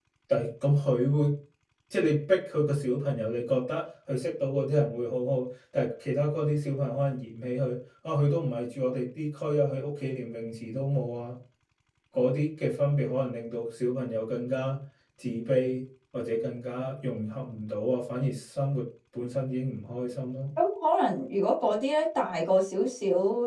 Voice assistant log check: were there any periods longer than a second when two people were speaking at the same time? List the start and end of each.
none

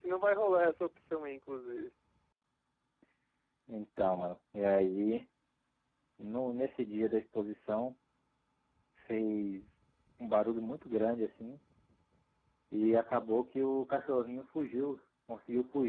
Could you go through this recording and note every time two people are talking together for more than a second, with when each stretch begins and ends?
none

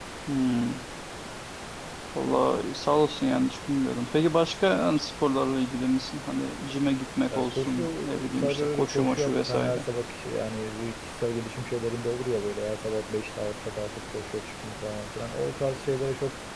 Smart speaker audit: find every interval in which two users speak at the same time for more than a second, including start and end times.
7.3-9.8

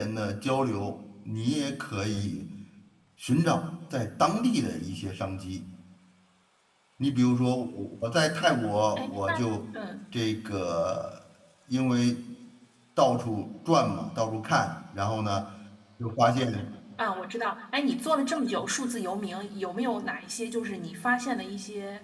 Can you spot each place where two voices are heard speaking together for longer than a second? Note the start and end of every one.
none

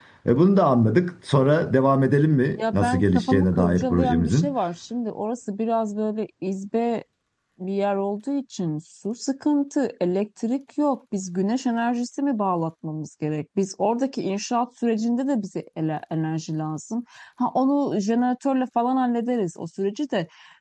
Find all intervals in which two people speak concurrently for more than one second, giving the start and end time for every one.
2.6-4.5

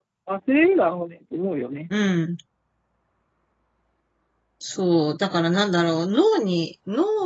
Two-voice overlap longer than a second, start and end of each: none

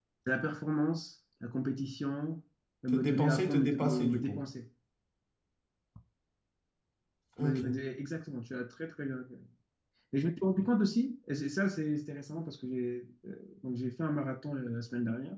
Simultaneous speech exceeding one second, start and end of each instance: 2.9-4.4

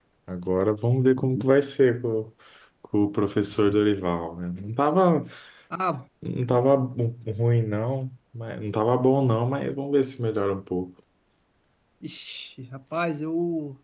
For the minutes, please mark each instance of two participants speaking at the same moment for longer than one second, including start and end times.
none

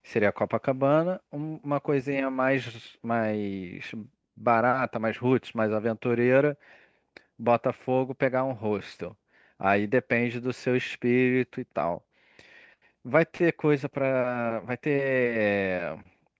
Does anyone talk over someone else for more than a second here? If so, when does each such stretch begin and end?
none

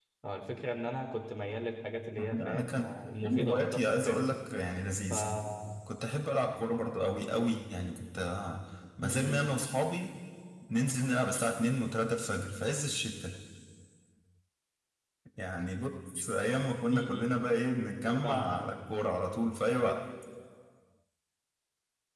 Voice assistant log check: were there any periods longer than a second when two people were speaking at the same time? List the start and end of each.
2.2-4.4

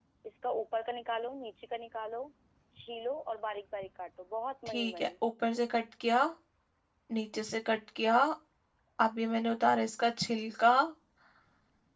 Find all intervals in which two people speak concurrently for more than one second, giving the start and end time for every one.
none

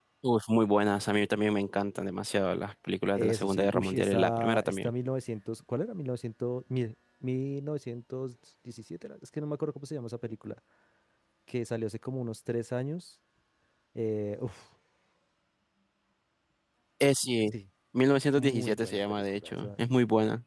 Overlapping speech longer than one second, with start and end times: 3.2-4.9, 18.4-19.7

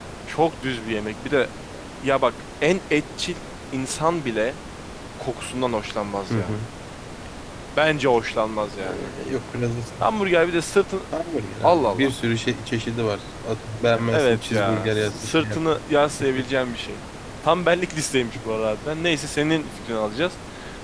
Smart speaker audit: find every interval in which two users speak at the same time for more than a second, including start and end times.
14.1-15.8

